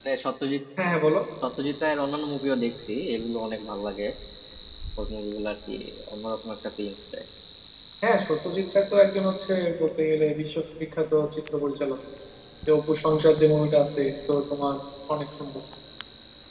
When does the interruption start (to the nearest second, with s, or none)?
none